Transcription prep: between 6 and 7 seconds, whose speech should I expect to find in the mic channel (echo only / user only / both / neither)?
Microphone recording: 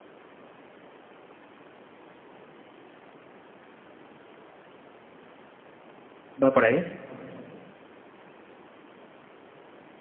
user only